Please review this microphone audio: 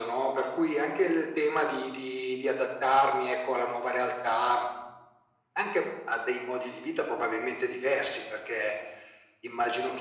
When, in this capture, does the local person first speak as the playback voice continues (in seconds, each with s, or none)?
none